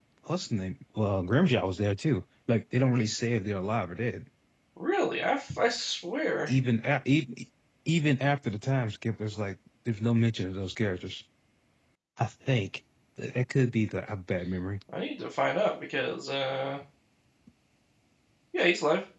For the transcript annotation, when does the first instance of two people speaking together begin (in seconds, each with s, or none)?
none